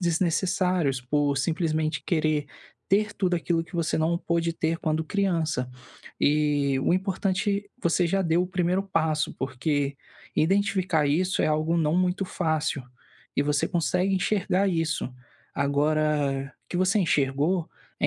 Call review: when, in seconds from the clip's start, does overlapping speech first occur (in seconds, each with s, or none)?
none